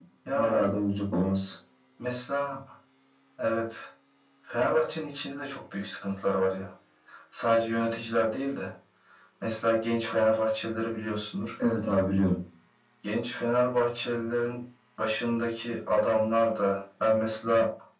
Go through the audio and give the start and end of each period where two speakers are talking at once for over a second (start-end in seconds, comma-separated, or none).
none